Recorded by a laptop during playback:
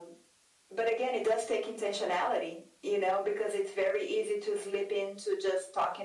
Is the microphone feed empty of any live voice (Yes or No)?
Yes